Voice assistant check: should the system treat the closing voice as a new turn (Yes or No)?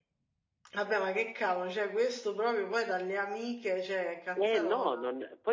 Yes